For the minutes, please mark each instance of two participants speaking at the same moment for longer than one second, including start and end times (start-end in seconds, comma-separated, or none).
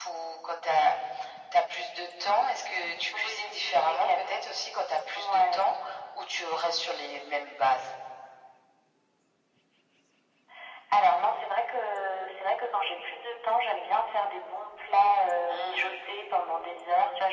3.1-4.4